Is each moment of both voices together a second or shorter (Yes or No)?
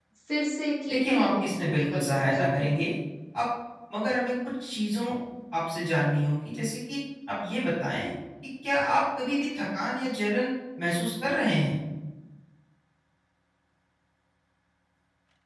No